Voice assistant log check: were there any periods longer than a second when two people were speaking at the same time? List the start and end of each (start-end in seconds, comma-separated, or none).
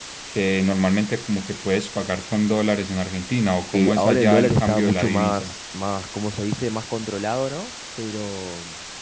3.7-5.5